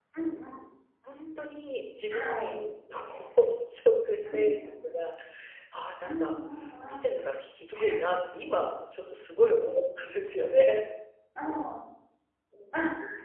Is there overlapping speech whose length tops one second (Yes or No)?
No